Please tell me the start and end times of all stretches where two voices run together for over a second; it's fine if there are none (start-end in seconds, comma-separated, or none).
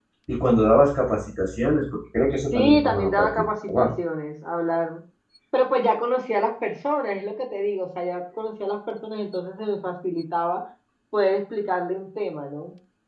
2.5-3.9